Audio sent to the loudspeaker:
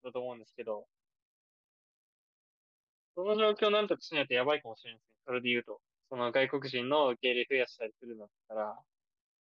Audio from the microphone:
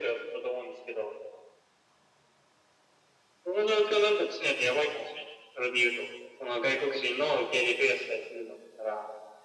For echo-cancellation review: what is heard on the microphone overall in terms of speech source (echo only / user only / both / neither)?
echo only